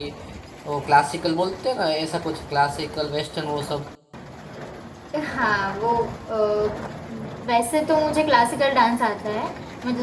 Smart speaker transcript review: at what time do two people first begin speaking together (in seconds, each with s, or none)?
none